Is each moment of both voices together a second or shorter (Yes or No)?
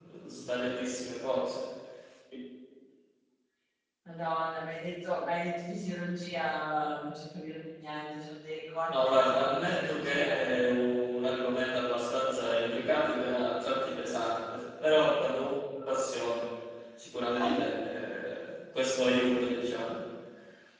No